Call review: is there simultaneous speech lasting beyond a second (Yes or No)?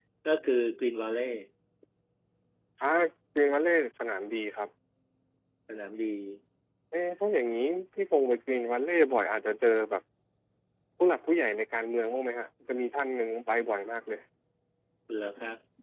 No